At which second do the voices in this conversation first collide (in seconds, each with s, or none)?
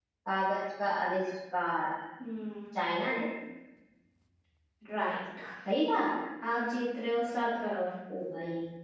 none